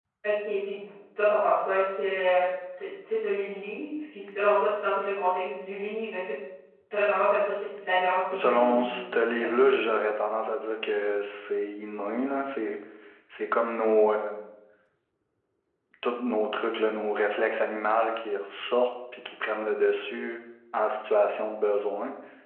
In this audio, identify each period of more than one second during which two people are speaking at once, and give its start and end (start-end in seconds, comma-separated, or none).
8.3-9.7